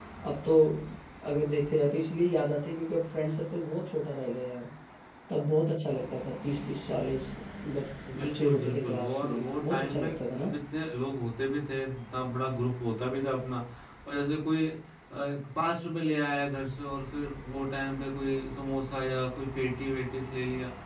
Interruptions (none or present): present